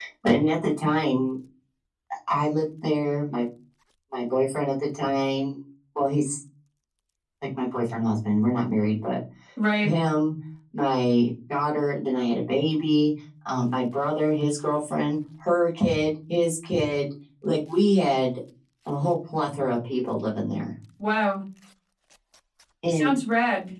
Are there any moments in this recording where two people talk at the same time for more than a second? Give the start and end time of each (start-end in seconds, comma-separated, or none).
none